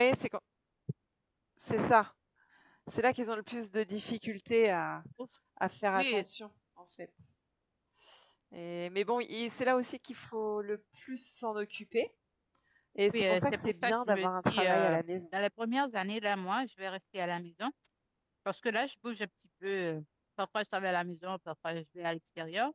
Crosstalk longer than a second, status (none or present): present